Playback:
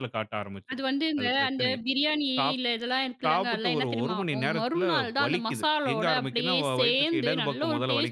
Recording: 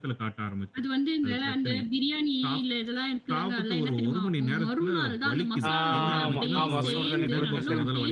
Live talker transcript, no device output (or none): ஆமா, ஆமா. சுடு தண்ணி குடிச்சா சரி